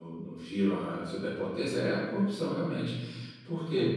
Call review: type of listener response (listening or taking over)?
listening